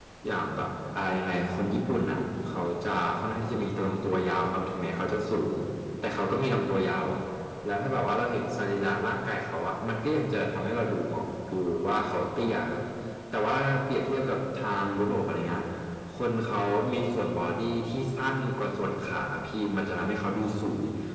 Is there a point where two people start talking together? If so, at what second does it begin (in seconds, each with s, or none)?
none